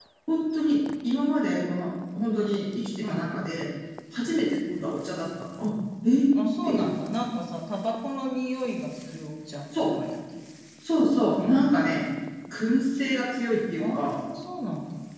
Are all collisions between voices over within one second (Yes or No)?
Yes